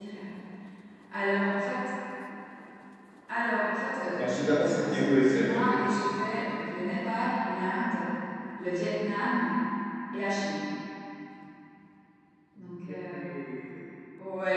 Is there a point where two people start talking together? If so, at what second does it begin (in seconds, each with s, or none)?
4.1 s